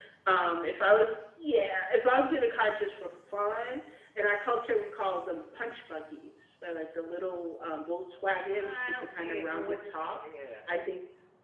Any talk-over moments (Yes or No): Yes